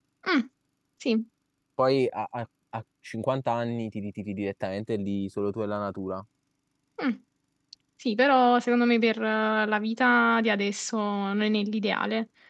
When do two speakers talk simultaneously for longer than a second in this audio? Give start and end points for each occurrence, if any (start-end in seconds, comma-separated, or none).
none